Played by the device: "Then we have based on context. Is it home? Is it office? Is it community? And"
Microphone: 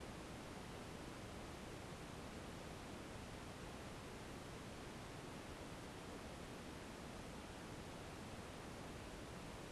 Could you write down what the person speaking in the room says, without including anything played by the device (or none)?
none